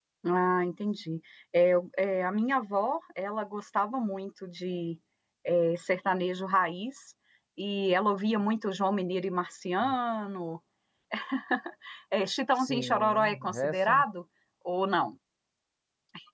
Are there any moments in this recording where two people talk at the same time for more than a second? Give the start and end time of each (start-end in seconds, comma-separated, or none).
12.6-14.0